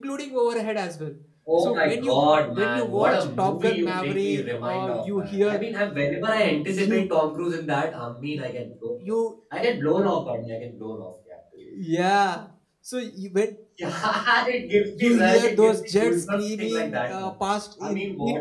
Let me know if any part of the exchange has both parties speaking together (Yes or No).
Yes